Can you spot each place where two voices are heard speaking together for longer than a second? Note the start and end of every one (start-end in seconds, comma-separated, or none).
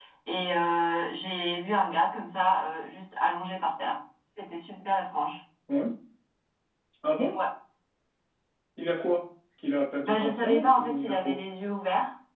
10.0-11.3